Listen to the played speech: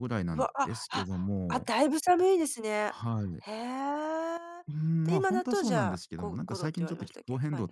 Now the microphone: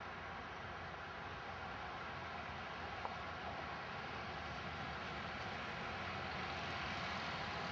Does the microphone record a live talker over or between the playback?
No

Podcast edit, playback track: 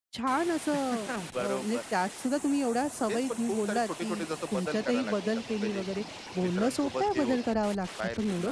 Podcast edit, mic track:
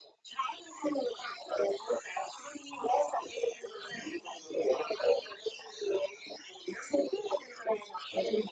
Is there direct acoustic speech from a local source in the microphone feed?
No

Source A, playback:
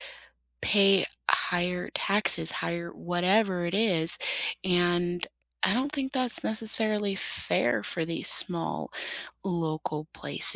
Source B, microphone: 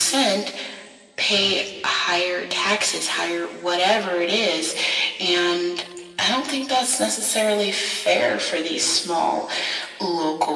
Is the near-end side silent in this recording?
Yes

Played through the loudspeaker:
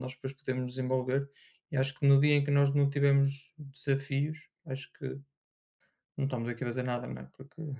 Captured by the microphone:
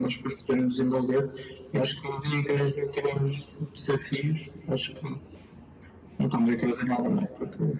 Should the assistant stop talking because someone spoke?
No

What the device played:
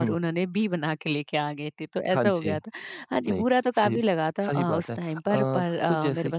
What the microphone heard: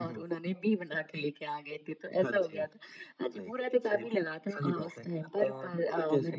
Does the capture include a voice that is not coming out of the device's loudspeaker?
No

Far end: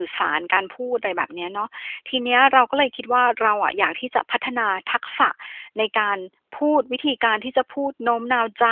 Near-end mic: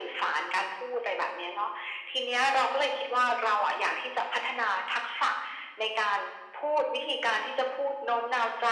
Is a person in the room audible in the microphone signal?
No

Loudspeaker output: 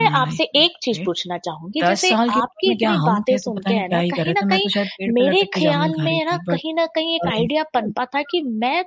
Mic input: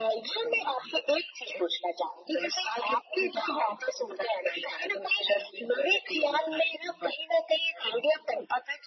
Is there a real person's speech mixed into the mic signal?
No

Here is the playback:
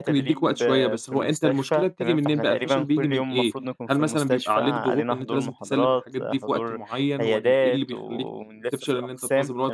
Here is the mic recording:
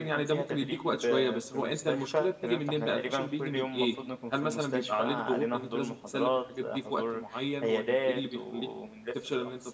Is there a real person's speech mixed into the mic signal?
No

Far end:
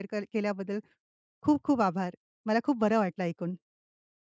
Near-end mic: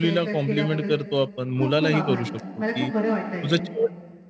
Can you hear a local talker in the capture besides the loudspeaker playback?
Yes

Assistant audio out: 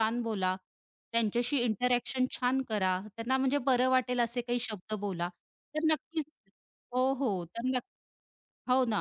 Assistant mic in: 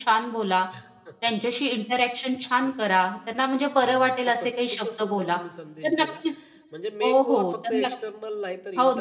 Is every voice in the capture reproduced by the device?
No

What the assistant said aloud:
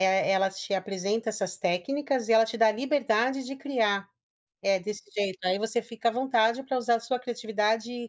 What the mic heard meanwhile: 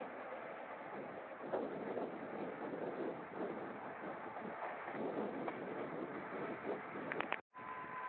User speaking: No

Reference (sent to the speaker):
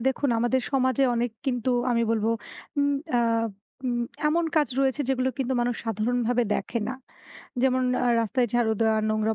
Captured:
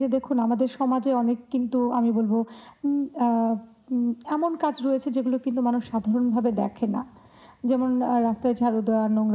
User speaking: No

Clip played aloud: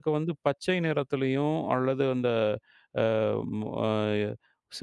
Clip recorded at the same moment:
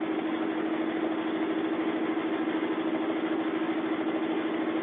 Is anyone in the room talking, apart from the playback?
No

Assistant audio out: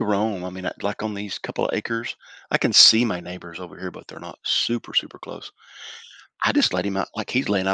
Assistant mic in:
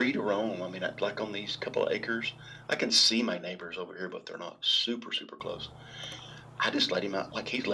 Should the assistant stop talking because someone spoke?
No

